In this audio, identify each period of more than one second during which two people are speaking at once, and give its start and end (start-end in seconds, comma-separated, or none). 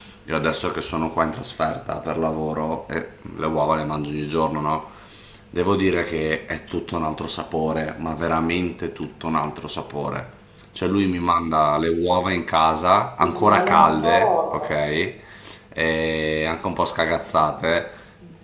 13.2-14.7